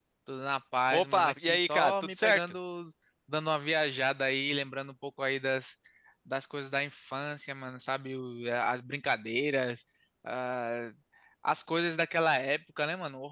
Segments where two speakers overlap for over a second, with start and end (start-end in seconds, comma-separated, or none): 0.9-2.4